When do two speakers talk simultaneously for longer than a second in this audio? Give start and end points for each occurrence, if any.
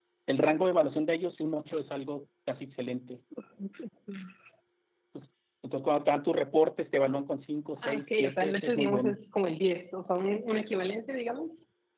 7.8-9.2

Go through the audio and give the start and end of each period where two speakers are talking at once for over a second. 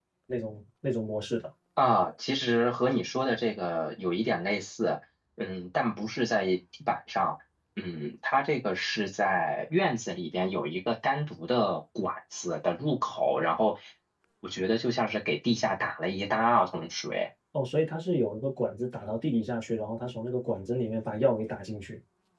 none

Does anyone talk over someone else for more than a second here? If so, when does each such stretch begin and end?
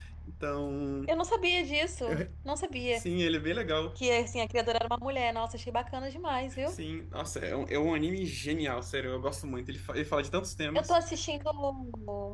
none

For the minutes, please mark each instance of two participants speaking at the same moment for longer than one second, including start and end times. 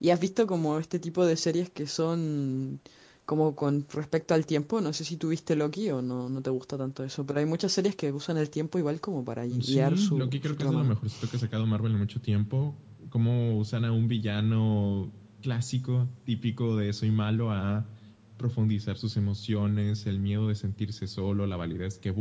9.6-10.9

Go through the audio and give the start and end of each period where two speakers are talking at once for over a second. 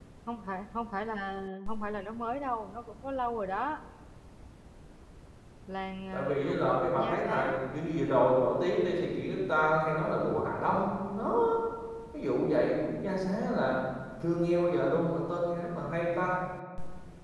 6.1-7.6

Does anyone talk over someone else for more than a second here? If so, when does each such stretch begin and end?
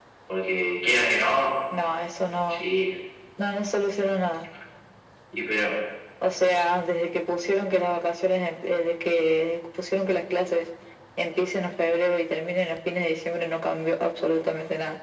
none

